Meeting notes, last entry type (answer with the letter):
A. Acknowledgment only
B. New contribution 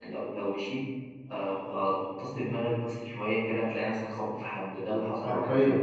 B